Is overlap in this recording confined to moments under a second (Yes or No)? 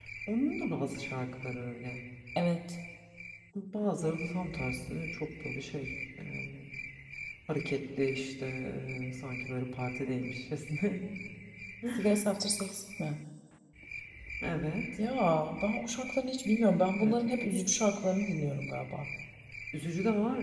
Yes